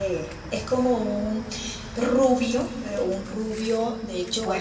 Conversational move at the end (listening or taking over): taking over